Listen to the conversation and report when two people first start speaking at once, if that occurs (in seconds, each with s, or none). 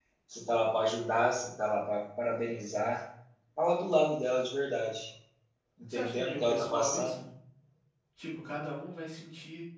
5.9 s